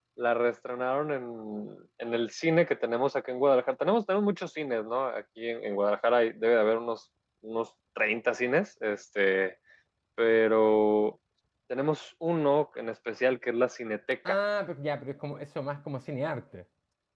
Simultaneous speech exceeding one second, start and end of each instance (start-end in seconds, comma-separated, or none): none